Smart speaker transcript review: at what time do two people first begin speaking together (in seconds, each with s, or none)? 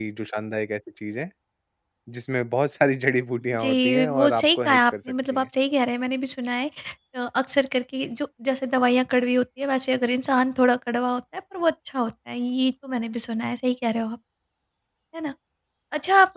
3.5 s